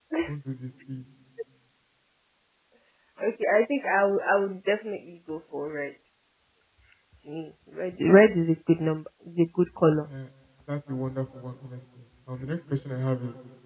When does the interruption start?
none

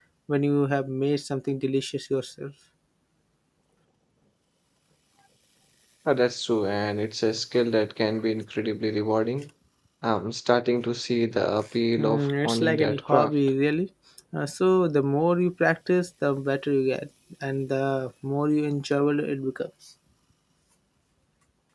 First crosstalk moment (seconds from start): 12.0 s

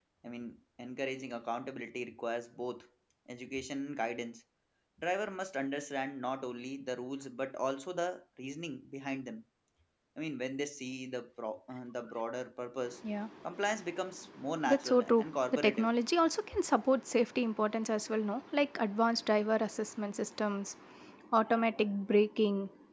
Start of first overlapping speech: 14.7 s

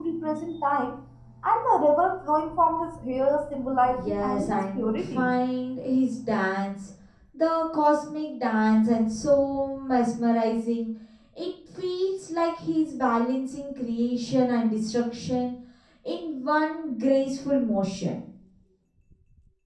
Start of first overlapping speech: 3.9 s

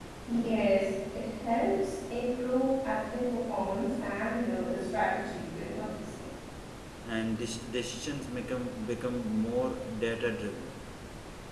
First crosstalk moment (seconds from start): none

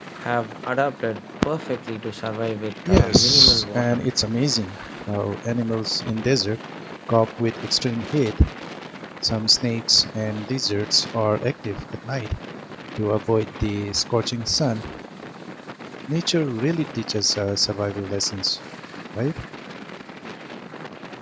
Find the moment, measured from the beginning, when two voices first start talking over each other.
2.9 s

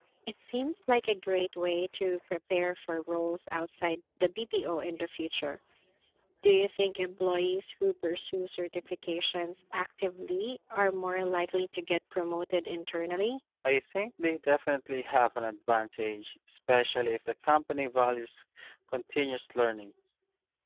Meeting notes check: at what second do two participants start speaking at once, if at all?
none

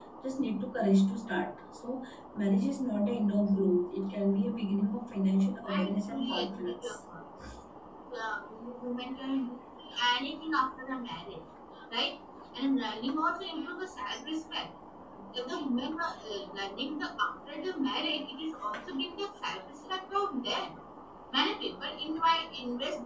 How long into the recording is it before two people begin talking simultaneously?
5.7 s

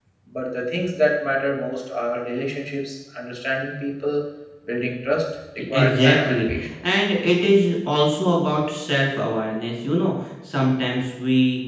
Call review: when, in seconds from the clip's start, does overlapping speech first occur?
5.7 s

